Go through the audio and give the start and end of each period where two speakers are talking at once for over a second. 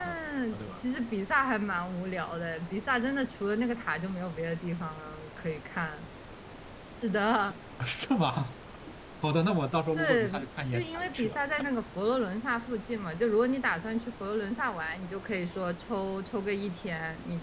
10.0-11.3

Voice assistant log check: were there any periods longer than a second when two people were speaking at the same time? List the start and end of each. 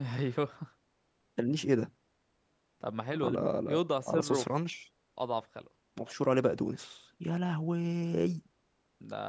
3.2-4.5

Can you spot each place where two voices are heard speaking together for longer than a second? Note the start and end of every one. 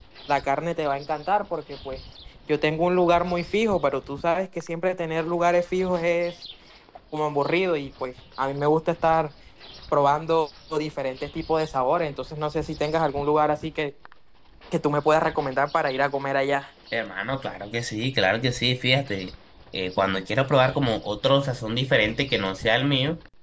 none

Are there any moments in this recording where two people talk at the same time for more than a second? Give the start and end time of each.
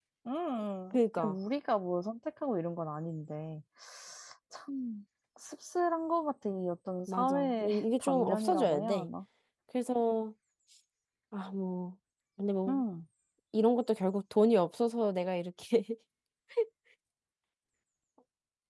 7.1-9.1

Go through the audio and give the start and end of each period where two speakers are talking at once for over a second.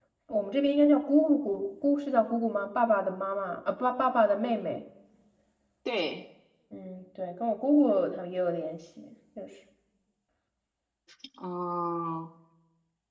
none

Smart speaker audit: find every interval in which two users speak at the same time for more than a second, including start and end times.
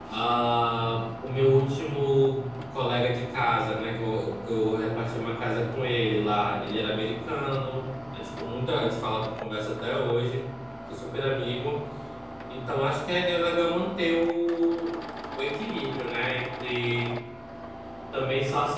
none

